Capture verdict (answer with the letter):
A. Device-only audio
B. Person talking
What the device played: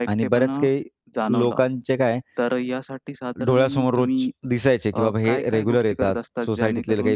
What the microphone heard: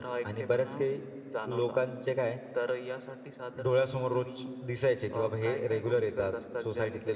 A